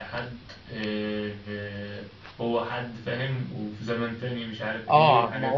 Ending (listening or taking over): taking over